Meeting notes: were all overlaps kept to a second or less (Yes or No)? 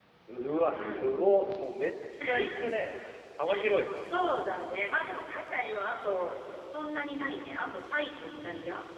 Yes